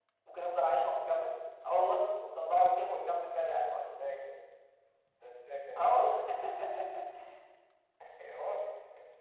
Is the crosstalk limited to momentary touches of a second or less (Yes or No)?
Yes